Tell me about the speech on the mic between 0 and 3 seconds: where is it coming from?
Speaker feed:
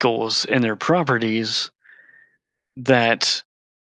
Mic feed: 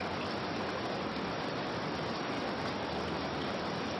neither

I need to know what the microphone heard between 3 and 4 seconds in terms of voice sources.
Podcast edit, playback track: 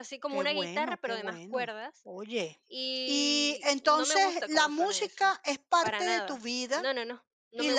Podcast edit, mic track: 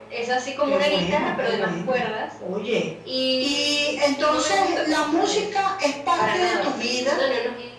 echo only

